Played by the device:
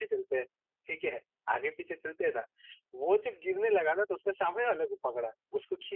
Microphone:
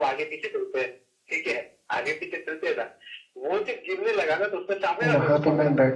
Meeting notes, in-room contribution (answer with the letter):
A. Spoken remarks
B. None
A